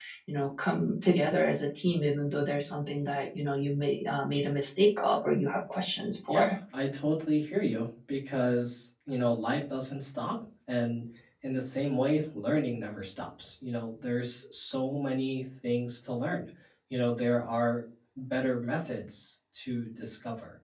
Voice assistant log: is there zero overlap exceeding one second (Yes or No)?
Yes